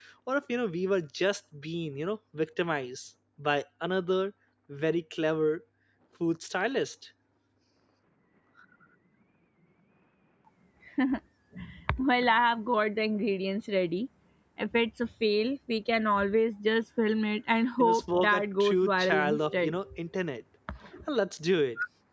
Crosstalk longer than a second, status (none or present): present